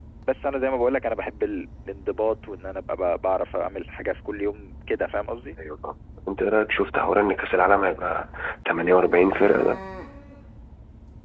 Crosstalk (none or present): none